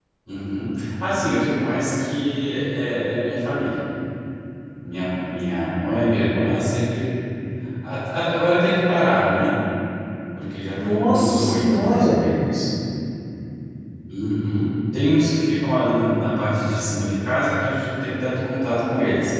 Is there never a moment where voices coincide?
No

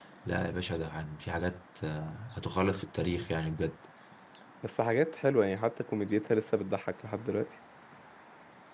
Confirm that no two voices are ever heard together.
Yes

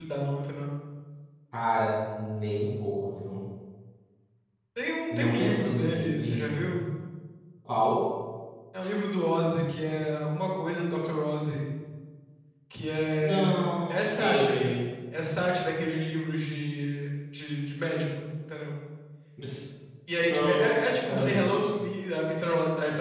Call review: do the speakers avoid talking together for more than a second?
No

